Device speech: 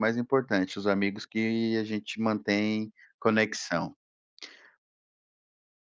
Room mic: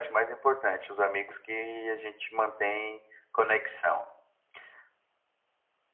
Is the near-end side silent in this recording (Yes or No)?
Yes